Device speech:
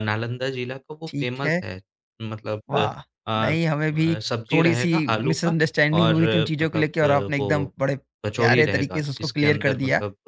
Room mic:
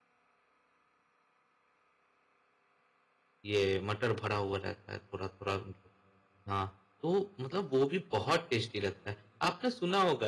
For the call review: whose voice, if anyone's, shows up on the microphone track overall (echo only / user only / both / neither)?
user only